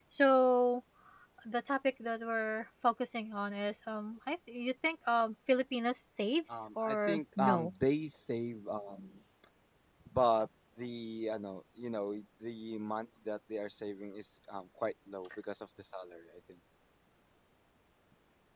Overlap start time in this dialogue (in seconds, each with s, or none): 6.5 s